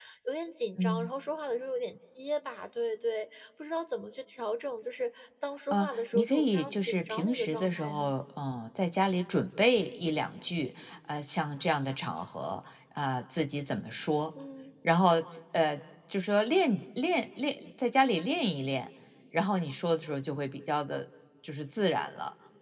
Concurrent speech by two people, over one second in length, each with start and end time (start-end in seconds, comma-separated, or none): 5.7-8.1